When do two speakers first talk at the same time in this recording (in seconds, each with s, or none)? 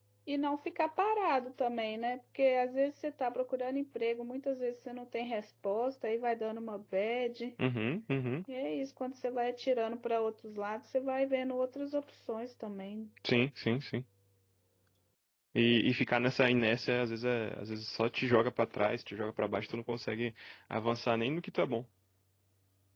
none